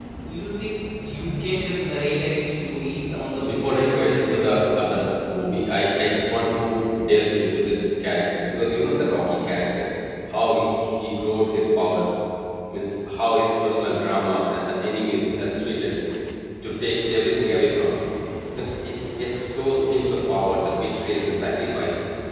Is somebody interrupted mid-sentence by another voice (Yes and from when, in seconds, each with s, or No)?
Yes, from 3.0 s